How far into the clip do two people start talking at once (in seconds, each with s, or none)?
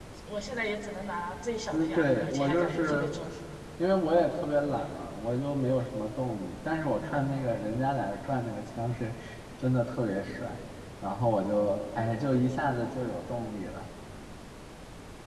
1.7 s